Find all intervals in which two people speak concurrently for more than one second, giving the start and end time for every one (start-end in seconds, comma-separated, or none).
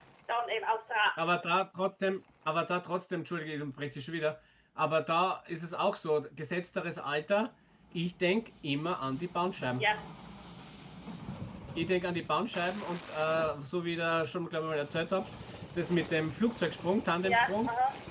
none